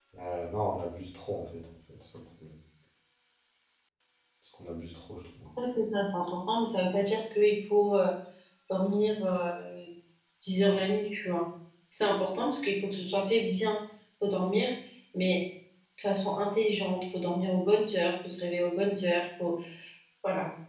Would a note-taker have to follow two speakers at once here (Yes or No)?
No